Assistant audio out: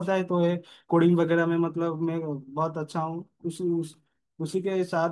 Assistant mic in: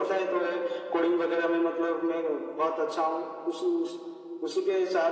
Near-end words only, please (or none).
none